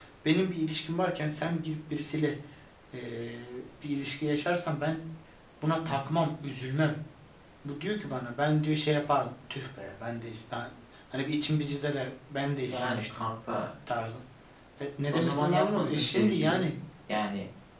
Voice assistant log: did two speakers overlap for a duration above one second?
Yes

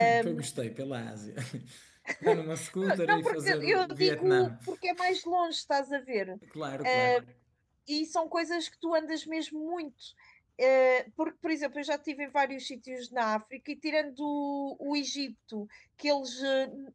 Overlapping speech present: Yes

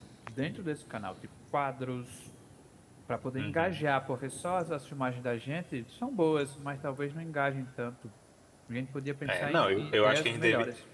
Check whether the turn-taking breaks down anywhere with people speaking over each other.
Yes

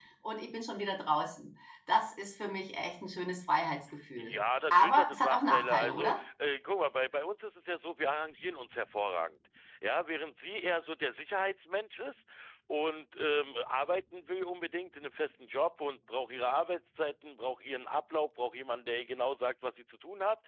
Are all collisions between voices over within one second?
No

